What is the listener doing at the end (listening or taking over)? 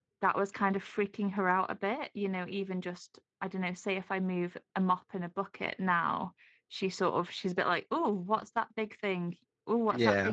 listening